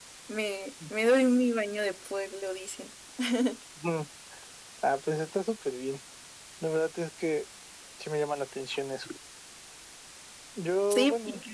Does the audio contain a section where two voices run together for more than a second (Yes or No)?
No